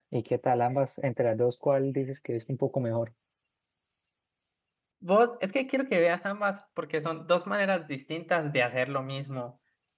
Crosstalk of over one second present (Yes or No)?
No